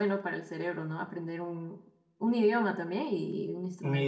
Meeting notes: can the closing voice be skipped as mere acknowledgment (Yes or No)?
No